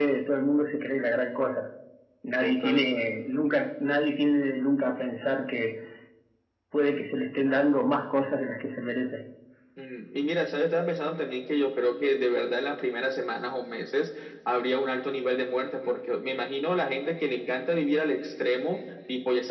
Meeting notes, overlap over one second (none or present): none